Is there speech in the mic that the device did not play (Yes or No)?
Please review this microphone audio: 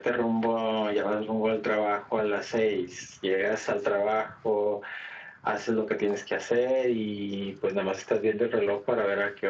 No